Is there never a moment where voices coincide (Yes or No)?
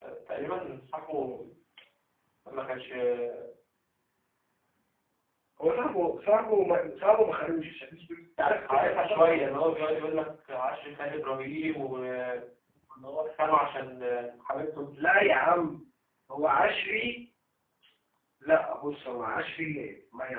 No